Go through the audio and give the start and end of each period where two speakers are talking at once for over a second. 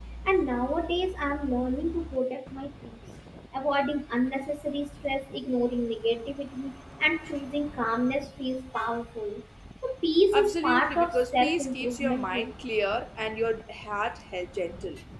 10.3-12.5

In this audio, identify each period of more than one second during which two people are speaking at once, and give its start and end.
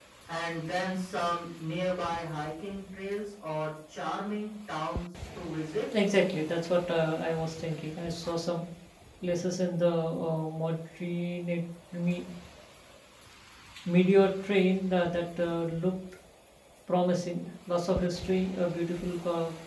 none

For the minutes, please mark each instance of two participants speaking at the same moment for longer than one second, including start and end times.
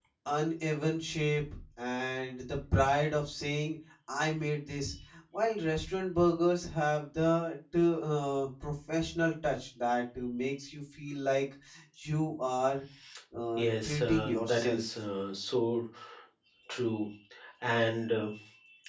13.6-14.8

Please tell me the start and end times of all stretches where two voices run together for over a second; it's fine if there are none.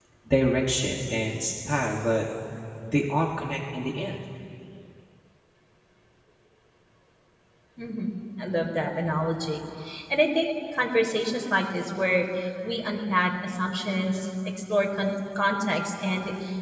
none

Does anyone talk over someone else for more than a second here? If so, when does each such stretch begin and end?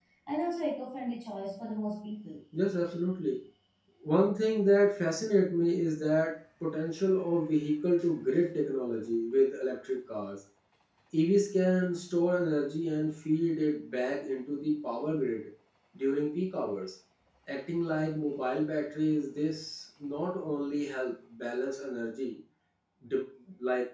none

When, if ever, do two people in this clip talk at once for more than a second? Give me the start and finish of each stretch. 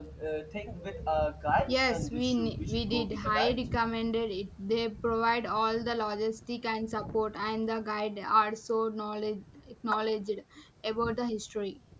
1.7-3.6

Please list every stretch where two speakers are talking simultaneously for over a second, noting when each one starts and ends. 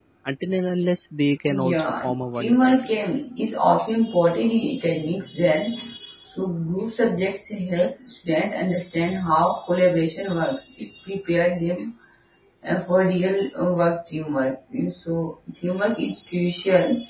1.5-2.8

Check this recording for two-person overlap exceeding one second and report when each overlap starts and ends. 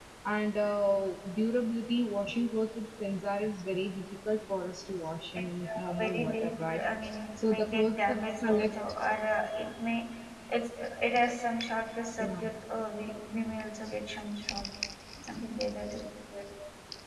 5.4-6.8, 7.4-8.7

